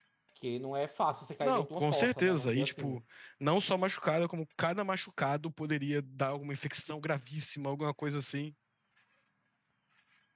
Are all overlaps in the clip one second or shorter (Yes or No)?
No